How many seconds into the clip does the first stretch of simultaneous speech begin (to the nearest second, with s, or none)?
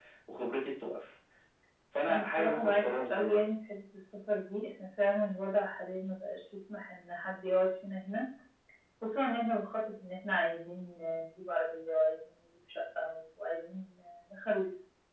2 s